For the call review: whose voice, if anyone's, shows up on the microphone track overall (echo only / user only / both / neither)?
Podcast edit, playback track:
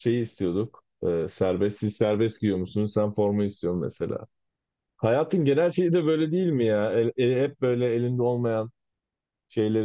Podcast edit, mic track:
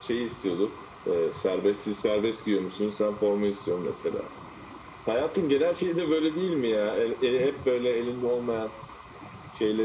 echo only